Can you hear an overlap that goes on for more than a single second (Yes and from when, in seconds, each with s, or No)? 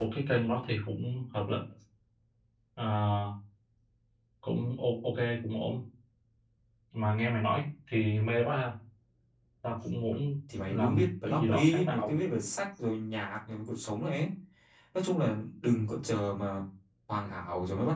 Yes, from 10.7 s